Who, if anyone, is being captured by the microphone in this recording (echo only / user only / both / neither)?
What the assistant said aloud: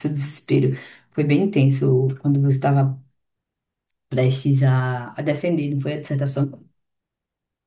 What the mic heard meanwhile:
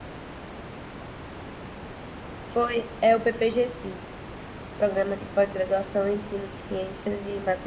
user only